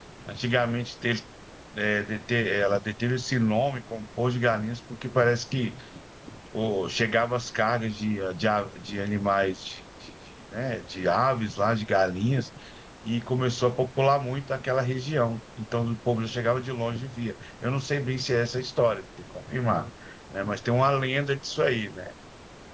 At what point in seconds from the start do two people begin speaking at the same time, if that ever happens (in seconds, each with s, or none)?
none